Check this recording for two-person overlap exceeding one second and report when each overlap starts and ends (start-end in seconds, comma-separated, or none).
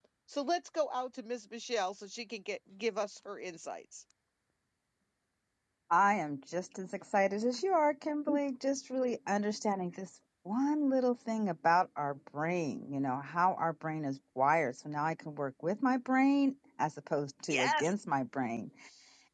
none